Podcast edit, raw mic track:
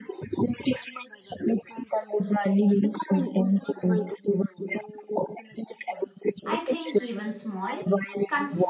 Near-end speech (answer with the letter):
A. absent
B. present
B